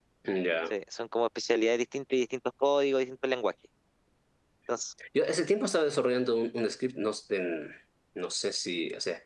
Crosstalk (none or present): none